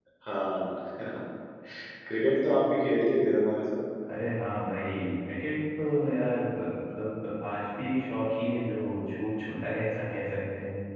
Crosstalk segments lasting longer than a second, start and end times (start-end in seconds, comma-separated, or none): none